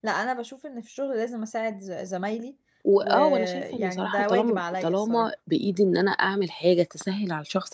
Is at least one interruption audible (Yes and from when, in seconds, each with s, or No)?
Yes, from 3.0 s